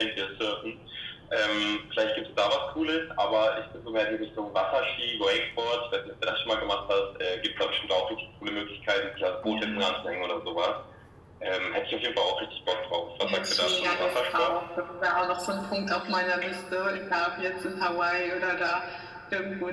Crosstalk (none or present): present